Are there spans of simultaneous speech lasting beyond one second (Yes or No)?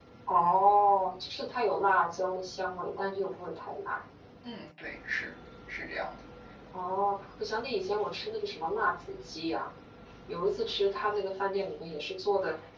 No